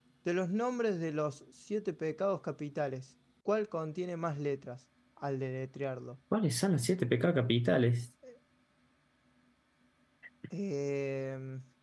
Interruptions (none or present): none